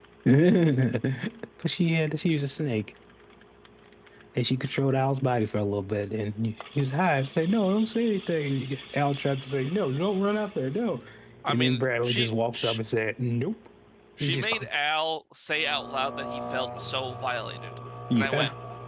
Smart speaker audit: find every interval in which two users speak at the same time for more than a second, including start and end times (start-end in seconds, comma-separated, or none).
11.5-12.8